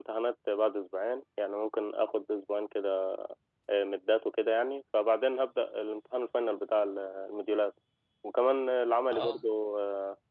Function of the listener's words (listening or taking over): listening